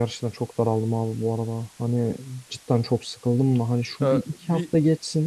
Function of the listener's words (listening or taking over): listening